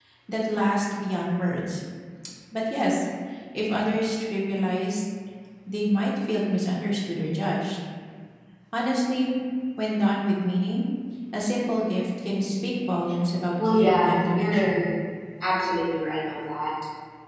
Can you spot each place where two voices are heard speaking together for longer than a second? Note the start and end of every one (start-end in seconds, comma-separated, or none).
13.7-14.9